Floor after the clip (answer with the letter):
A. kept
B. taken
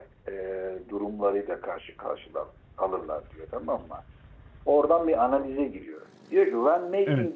A